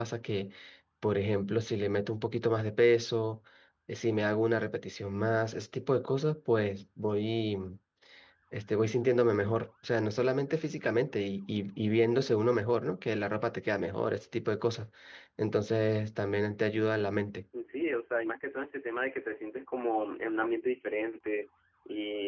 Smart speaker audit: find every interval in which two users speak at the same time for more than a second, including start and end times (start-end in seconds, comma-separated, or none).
none